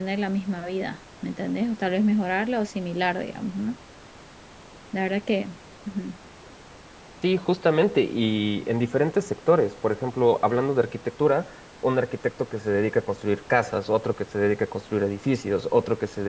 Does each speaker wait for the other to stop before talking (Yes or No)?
Yes